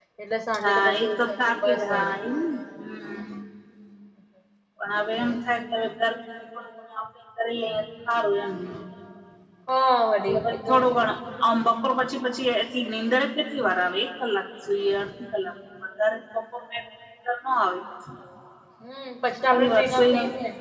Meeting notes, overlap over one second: present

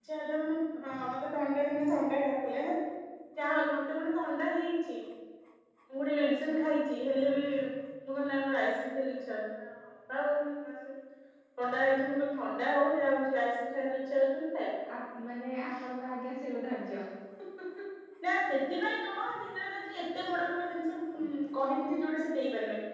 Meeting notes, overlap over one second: none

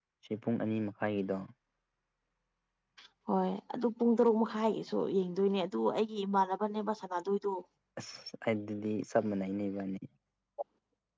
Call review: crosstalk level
none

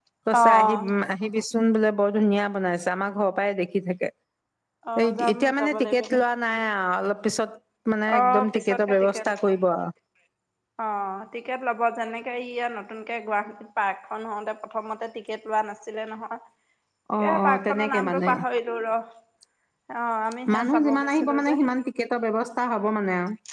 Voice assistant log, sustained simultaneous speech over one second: present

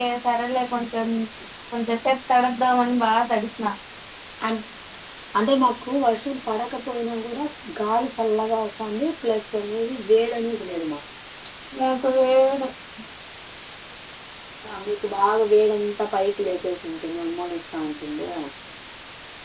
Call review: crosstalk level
none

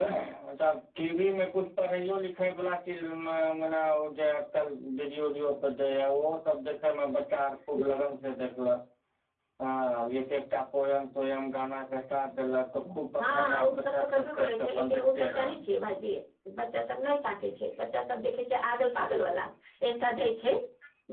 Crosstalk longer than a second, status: present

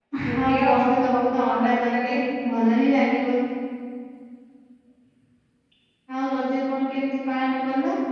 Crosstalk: present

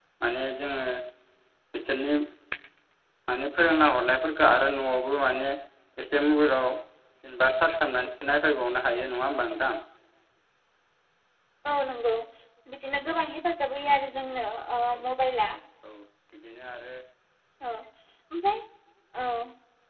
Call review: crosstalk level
none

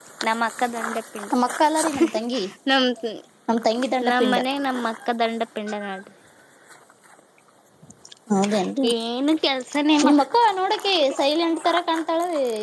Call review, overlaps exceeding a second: none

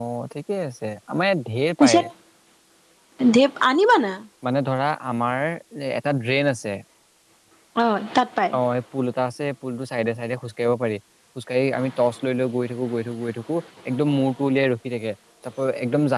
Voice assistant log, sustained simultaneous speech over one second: none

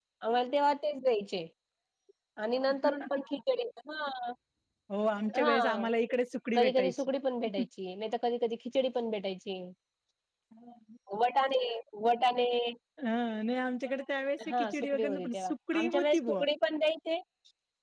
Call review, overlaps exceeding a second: present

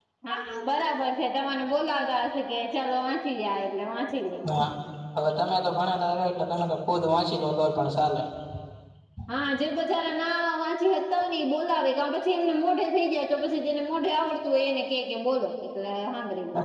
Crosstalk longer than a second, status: none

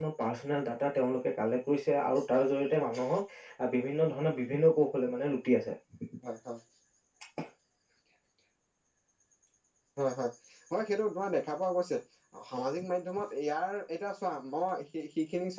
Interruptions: none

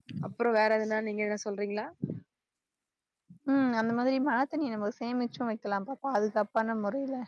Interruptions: none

